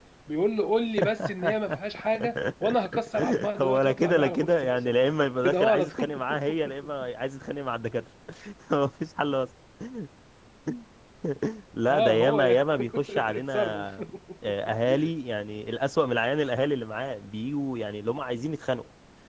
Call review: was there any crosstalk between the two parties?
Yes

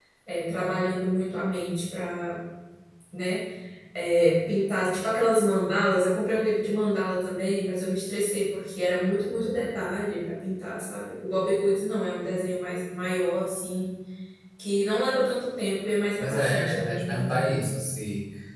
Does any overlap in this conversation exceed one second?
Yes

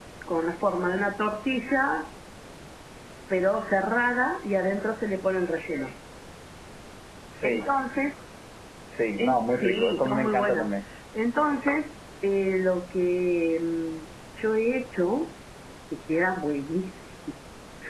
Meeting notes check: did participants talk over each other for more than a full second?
Yes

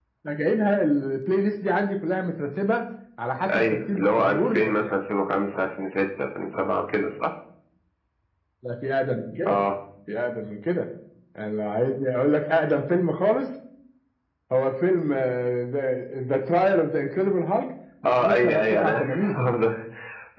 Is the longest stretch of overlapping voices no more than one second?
No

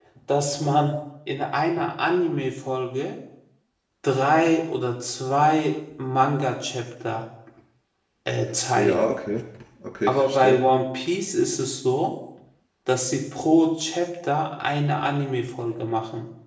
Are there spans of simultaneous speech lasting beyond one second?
No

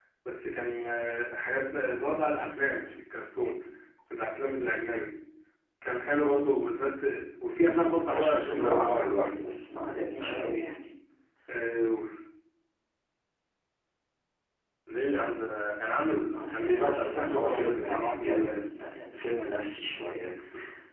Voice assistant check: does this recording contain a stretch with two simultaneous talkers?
Yes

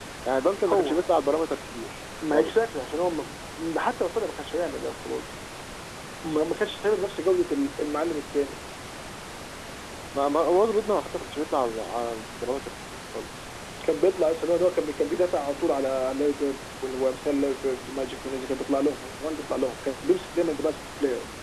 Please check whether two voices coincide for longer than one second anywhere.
No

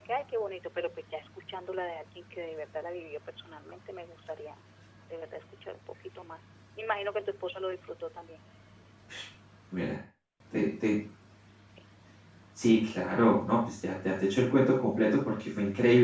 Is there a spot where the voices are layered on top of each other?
No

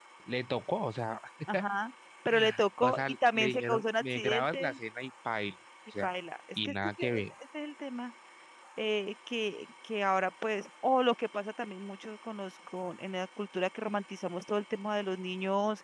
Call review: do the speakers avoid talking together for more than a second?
No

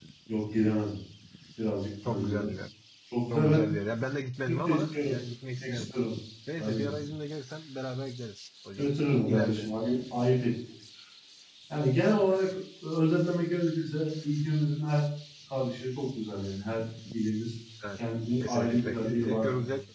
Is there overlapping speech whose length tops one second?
Yes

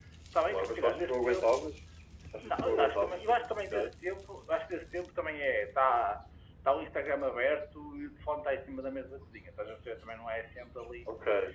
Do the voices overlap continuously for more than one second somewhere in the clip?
Yes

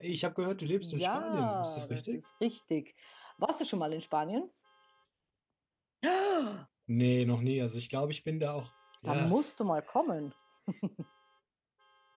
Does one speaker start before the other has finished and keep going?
Yes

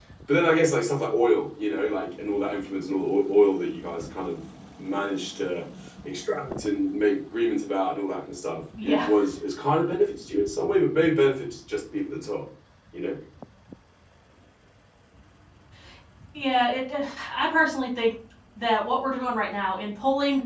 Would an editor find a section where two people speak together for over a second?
No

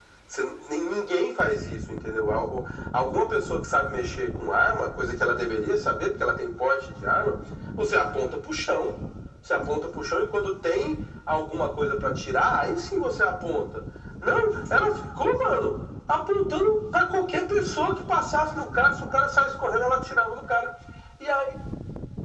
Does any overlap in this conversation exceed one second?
No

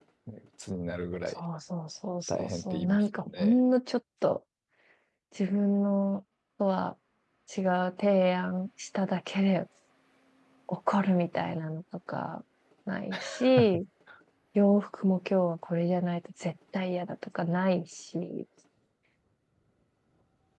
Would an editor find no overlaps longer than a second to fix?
No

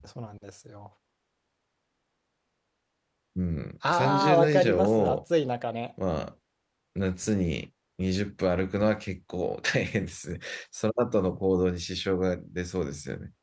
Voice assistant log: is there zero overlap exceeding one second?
No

